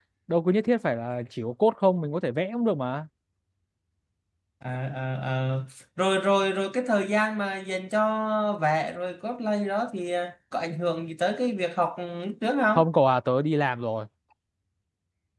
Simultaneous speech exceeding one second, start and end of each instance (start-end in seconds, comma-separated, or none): none